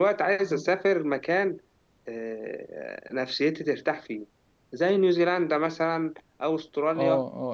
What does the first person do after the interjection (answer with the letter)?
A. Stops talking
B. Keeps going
A